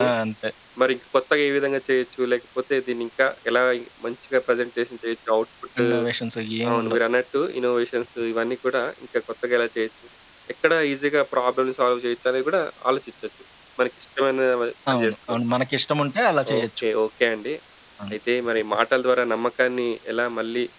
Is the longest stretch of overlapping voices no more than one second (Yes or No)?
Yes